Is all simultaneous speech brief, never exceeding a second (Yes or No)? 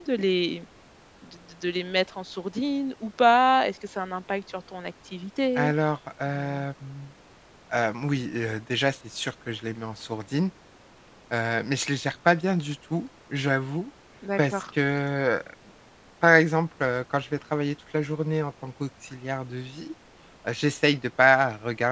Yes